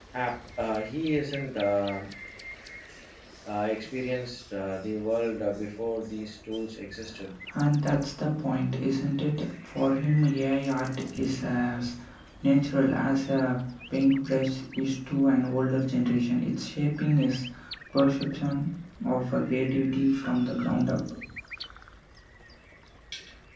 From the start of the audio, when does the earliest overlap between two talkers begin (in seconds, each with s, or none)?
none